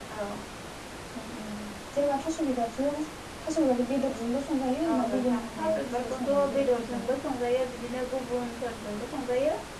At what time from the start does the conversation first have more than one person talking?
4.8 s

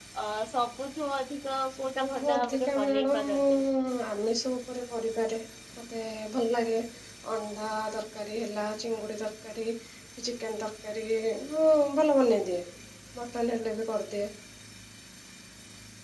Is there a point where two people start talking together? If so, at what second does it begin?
2.0 s

